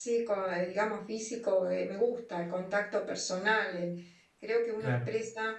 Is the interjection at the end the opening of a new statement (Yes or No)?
No